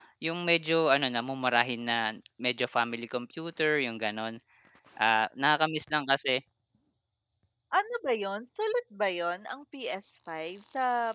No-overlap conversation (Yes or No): Yes